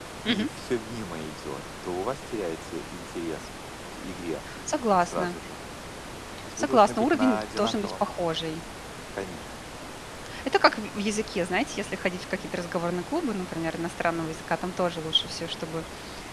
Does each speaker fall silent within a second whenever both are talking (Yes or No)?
No